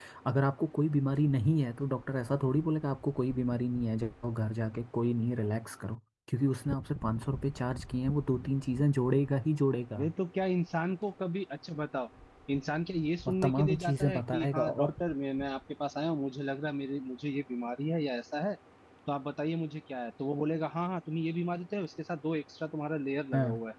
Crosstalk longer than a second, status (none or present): present